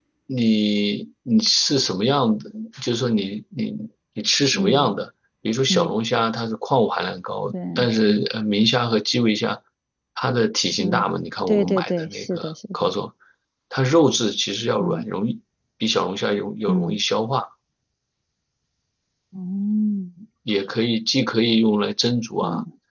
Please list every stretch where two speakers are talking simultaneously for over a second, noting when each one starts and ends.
11.5-12.9

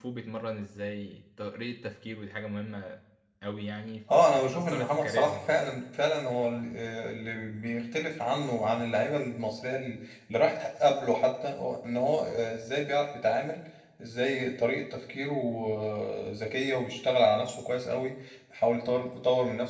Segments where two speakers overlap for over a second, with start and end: 4.1-5.6

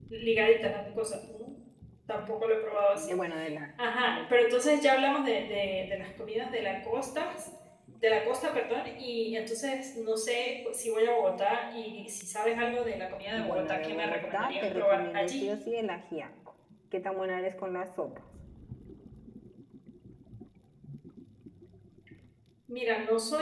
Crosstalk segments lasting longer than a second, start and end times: 13.3-15.5

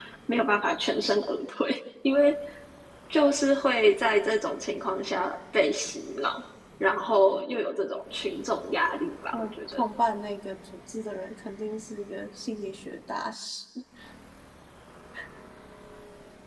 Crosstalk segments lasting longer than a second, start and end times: none

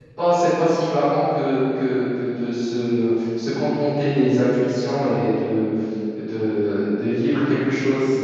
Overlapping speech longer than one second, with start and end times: none

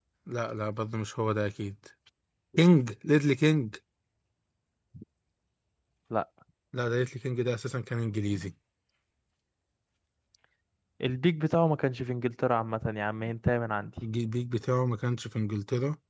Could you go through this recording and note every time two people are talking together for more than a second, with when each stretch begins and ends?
none

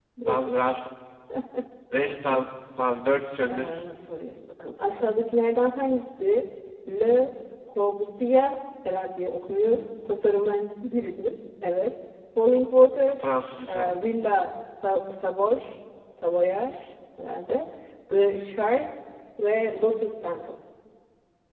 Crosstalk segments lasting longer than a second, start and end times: none

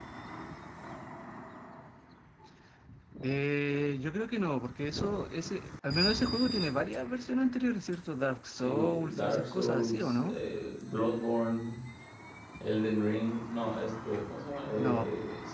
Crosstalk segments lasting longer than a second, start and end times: 8.6-10.4

